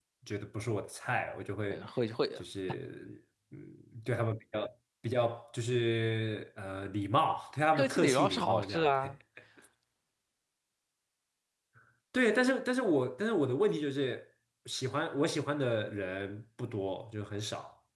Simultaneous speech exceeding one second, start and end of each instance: 7.7-9.2

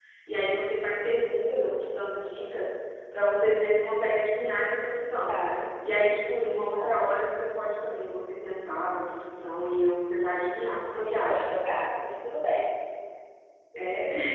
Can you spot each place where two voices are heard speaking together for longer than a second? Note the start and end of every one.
none

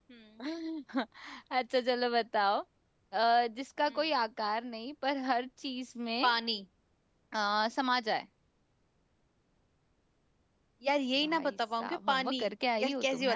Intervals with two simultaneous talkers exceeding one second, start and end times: 11.2-12.4

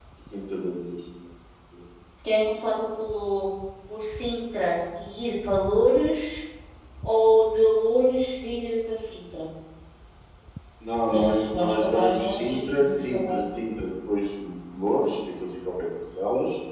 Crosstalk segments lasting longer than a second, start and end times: 11.1-13.4

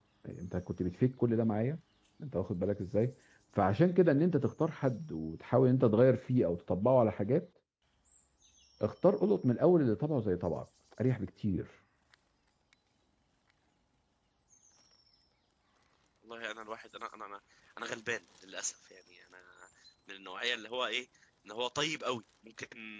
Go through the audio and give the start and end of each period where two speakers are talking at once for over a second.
none

